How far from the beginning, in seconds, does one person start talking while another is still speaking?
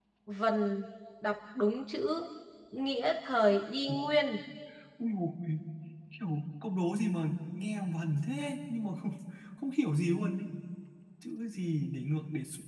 none

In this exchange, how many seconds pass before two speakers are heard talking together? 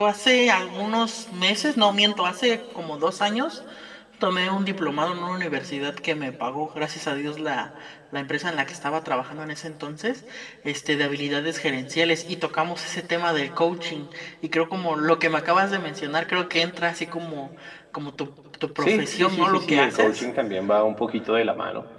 19 s

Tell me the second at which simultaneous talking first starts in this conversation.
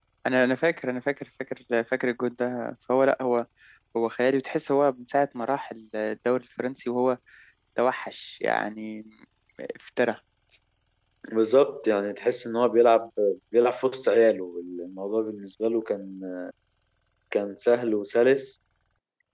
none

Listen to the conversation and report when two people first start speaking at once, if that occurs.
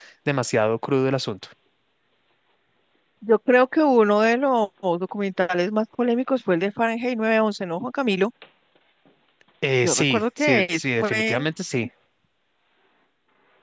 10 s

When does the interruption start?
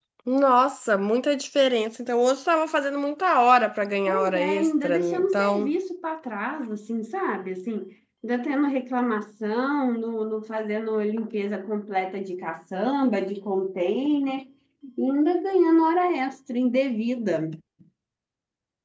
4 s

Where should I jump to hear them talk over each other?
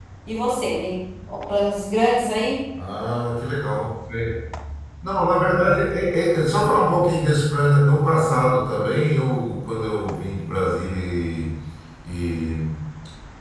none

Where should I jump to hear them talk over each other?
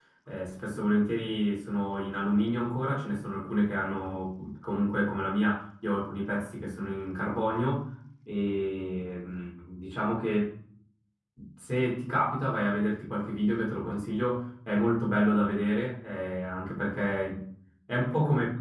none

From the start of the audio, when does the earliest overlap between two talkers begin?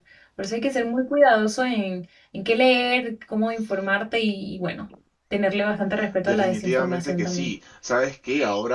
6 s

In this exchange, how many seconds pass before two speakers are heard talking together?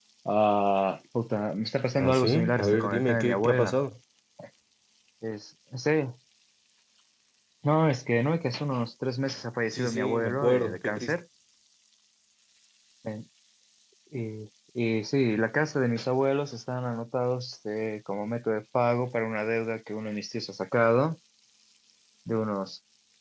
2 s

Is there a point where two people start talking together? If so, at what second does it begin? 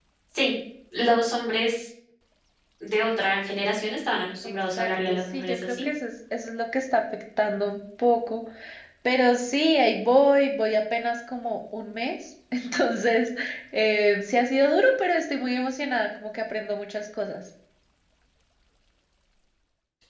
4 s

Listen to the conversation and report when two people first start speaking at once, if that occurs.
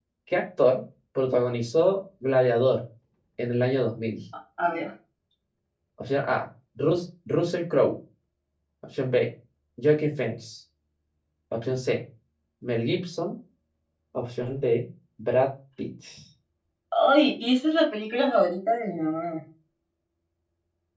none

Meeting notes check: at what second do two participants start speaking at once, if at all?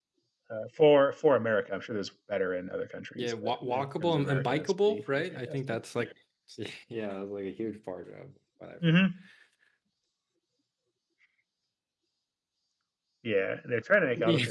3 s

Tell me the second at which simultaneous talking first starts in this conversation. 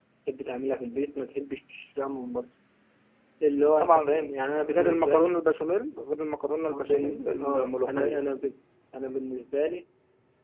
4 s

